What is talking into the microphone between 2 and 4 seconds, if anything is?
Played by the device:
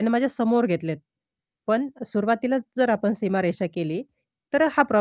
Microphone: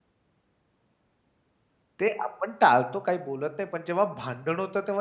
user only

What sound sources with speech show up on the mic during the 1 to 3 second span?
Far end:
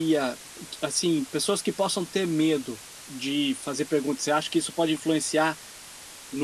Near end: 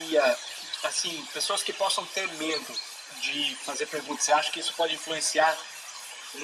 echo only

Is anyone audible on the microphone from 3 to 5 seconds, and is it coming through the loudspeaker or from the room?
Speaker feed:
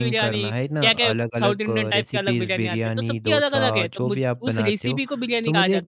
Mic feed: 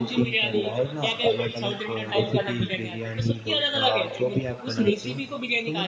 echo only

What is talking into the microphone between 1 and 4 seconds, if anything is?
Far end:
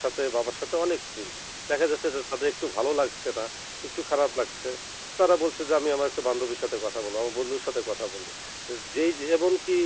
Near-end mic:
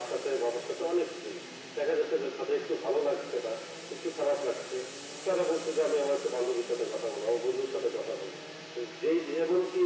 echo only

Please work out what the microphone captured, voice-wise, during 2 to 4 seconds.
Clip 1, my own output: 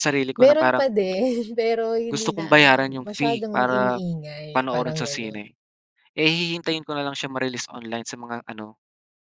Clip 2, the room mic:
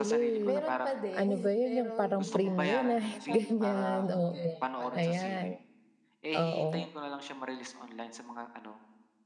both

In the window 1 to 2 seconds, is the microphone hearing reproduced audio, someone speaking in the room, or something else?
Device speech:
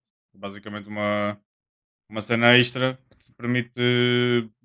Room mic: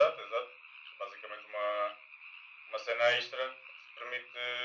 echo only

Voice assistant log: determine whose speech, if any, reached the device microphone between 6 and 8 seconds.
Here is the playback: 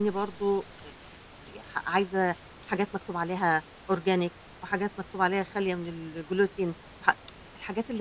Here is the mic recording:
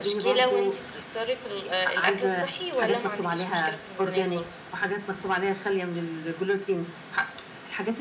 echo only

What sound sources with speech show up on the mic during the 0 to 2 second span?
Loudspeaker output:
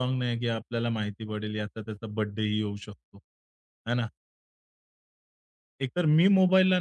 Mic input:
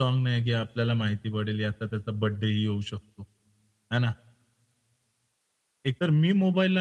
echo only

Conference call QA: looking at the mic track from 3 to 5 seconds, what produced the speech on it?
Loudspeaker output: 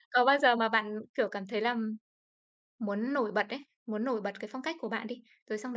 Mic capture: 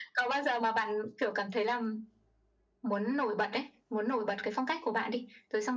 echo only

